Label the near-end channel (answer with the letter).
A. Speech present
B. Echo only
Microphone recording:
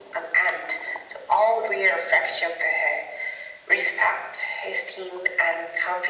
B